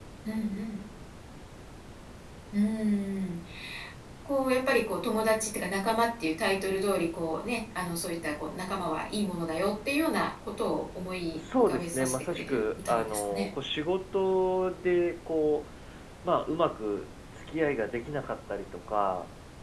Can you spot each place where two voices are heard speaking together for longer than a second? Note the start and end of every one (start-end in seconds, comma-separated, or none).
11.6-13.5